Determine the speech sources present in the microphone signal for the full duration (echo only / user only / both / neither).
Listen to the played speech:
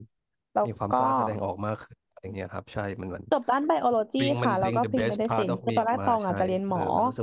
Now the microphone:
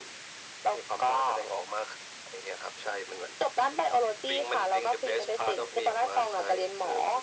echo only